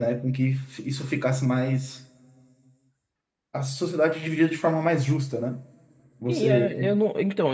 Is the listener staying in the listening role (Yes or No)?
No